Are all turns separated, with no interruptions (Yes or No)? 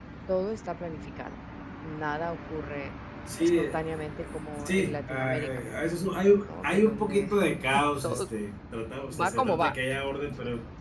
No